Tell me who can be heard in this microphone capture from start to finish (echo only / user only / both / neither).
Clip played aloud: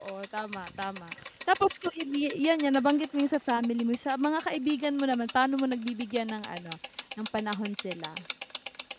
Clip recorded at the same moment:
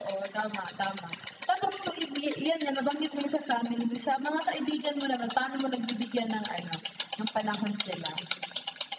echo only